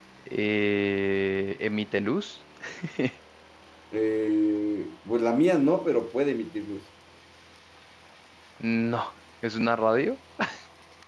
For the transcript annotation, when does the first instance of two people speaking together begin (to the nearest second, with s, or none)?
none